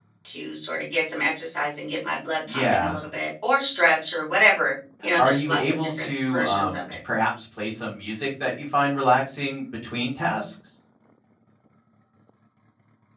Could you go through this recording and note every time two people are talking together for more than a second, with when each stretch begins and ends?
5.2-6.8

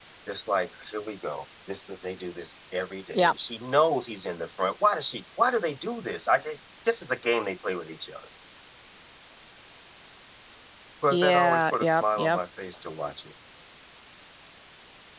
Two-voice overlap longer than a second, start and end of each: 11.1-12.4

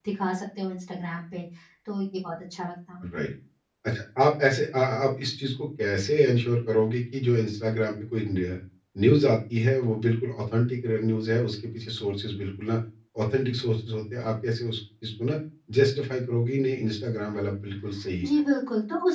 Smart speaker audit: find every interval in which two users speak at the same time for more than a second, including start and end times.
none

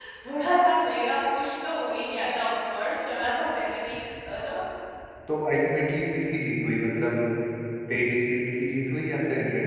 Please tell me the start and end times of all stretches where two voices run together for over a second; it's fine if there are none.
none

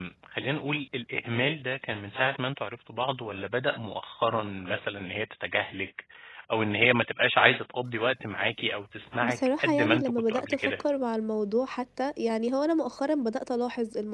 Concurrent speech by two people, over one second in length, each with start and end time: 9.2-10.7

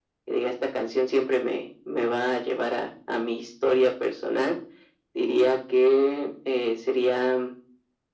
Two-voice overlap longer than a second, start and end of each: none

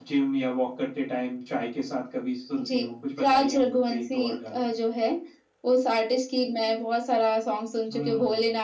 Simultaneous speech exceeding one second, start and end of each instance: 3.2-4.6

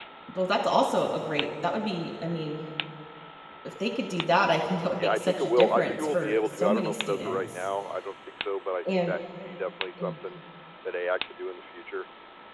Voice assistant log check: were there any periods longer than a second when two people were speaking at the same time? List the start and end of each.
5.0-7.7

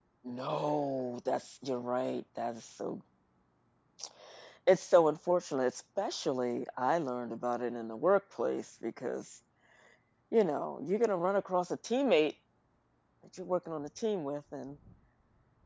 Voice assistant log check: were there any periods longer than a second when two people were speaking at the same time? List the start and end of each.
none

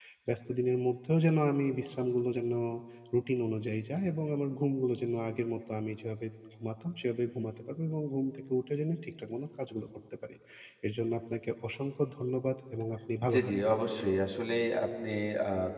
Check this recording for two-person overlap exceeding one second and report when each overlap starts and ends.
none

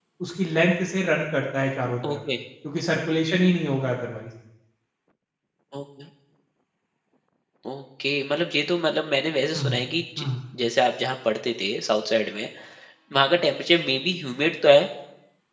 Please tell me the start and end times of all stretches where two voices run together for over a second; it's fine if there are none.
none

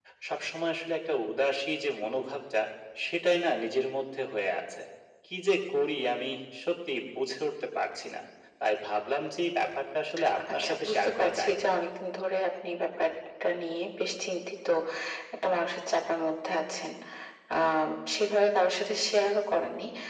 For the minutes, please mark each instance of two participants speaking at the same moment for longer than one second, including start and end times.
10.5-11.8

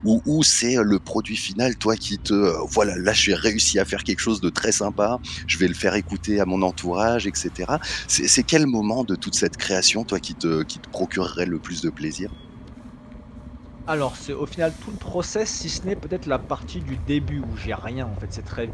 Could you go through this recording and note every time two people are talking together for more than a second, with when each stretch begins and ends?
none

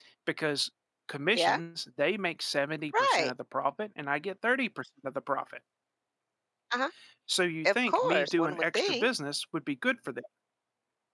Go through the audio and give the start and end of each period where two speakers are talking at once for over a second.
7.7-9.1

